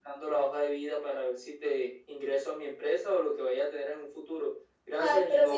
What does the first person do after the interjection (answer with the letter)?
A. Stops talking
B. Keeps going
A